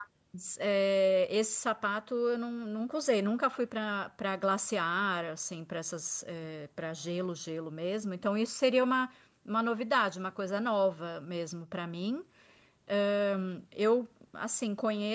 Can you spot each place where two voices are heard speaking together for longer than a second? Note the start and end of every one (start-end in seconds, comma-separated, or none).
none